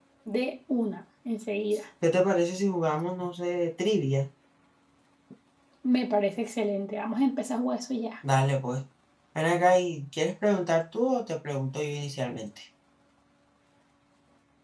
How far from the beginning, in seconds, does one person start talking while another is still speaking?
none

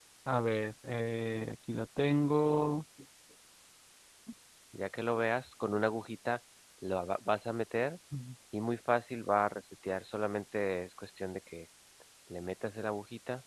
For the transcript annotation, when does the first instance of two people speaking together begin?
none

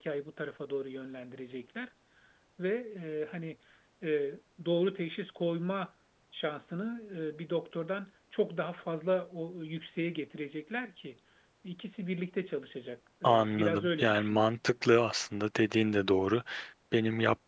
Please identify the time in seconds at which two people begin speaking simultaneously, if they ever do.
13.2 s

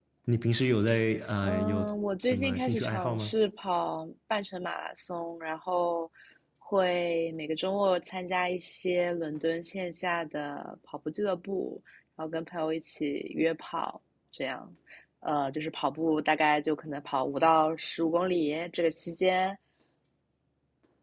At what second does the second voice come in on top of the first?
1.4 s

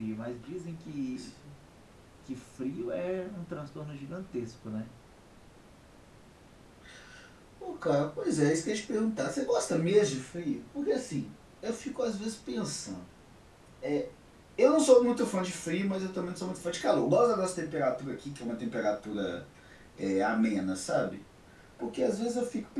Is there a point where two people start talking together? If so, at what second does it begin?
none

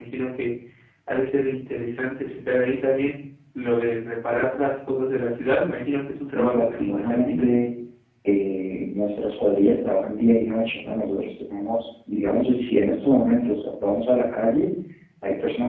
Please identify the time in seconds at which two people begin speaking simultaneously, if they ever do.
6.2 s

